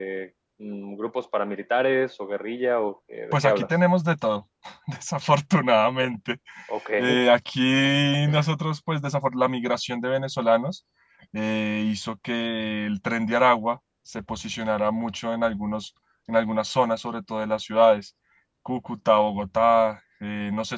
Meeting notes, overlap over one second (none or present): none